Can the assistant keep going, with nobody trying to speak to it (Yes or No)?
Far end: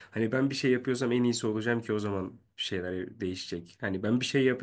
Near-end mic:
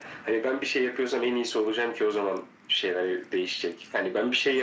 Yes